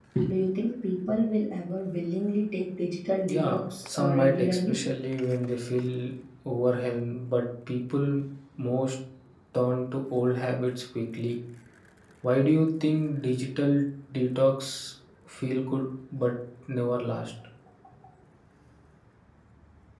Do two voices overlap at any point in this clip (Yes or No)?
Yes